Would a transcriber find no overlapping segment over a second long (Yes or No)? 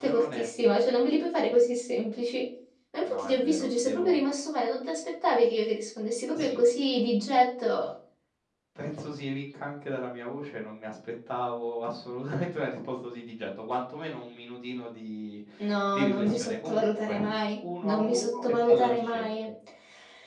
No